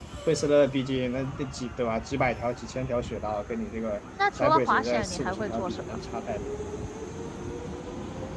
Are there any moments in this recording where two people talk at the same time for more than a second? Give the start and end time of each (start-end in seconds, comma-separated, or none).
4.4-5.8